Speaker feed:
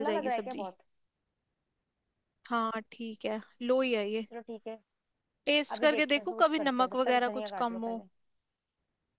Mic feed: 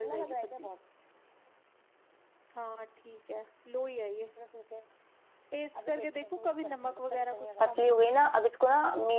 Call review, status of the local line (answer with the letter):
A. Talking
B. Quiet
A